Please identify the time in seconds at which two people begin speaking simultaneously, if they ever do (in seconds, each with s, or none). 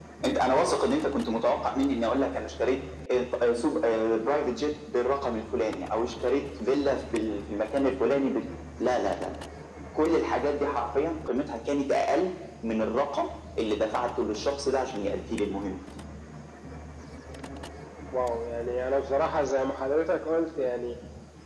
none